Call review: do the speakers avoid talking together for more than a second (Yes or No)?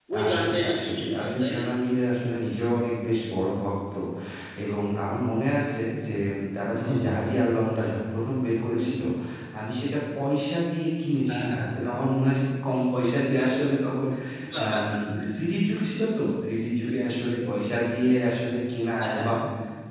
No